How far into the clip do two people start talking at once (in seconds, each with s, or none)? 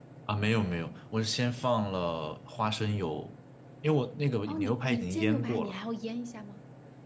4.5 s